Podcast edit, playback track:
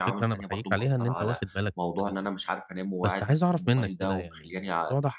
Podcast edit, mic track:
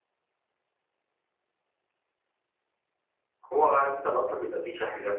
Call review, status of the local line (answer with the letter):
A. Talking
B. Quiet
A